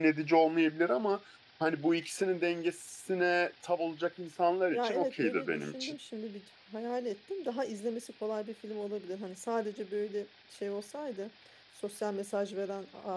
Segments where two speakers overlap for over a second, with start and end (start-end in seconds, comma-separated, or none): 4.7-5.9